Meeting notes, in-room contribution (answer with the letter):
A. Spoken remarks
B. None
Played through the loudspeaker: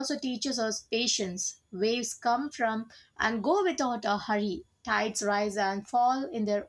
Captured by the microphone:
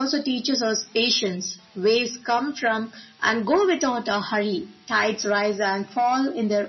B